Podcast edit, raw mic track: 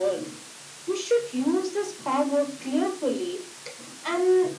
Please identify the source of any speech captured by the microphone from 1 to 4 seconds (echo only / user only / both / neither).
echo only